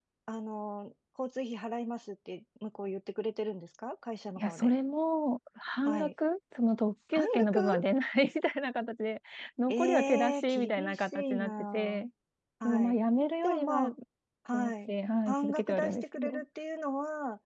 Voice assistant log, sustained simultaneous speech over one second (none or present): present